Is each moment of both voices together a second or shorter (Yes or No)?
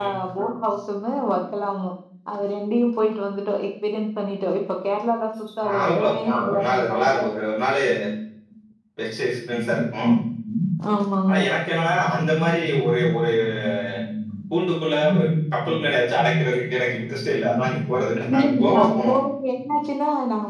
No